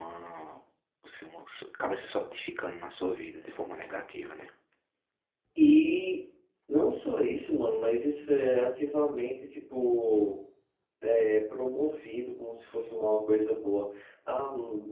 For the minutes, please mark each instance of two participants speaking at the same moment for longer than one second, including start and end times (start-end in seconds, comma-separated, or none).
none